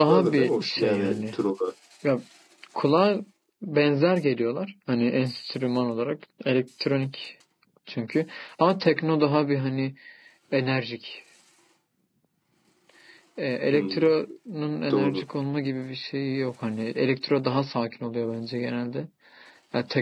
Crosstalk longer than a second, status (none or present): present